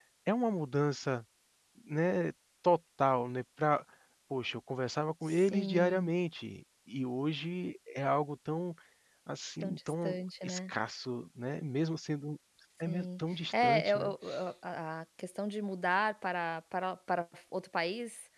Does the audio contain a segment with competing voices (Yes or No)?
Yes